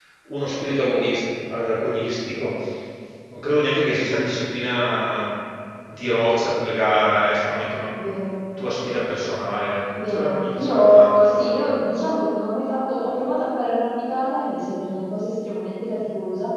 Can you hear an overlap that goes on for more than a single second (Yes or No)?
Yes